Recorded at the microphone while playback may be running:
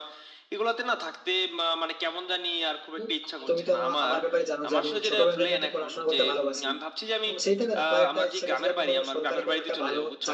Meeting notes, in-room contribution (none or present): present